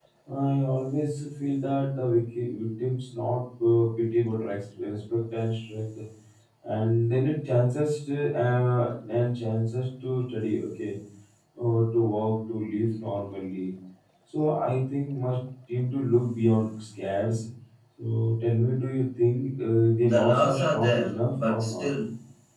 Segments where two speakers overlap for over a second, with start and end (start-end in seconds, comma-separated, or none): 20.0-21.9